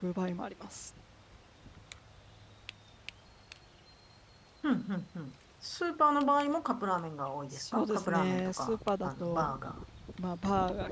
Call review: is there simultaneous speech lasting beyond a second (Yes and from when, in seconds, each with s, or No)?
Yes, from 7.5 s